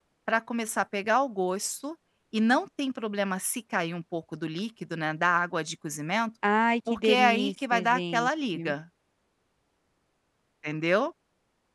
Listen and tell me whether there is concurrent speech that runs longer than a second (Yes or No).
Yes